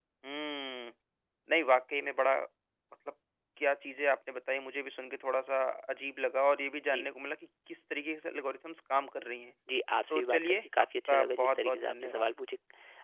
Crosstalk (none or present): present